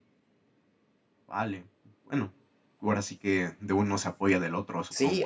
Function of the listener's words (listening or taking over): taking over